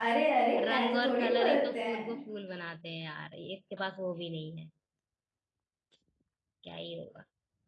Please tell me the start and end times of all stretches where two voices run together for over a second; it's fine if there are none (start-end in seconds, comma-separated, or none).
0.6-2.2